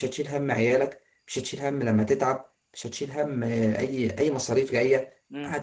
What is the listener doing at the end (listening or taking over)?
taking over